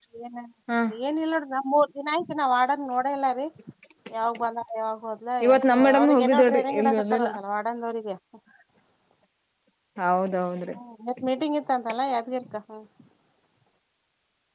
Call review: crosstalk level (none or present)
present